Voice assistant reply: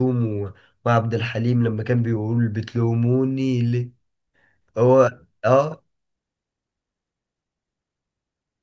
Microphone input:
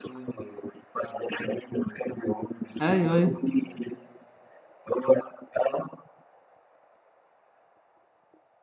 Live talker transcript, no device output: ايوه ايوه

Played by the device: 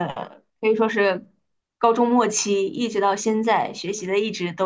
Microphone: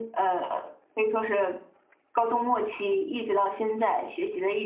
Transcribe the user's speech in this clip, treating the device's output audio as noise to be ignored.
none

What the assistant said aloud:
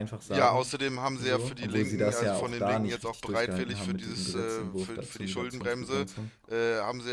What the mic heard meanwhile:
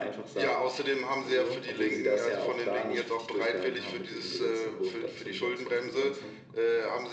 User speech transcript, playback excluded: none

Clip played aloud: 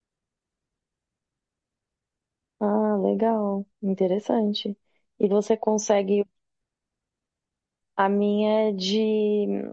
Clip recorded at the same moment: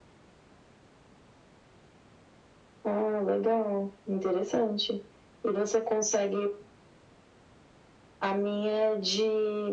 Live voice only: none

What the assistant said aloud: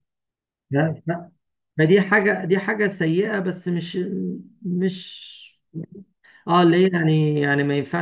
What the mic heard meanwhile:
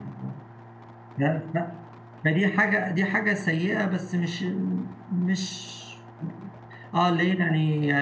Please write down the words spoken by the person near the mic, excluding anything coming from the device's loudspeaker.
none

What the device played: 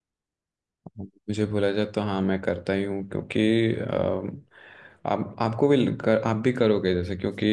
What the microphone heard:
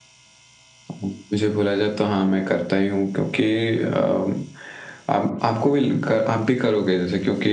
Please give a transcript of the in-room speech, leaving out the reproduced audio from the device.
none

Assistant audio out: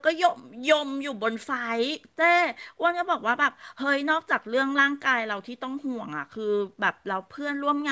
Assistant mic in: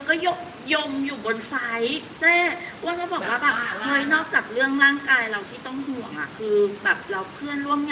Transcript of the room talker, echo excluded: แบบว่าว่าแบบ

